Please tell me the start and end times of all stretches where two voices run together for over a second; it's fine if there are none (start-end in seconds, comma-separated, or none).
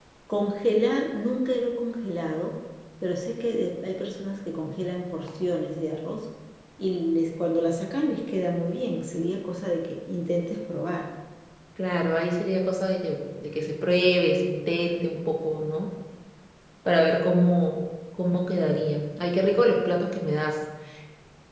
none